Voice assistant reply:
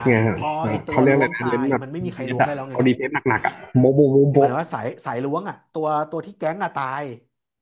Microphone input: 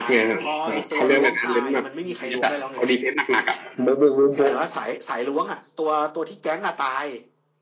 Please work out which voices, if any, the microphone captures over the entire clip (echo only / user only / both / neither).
echo only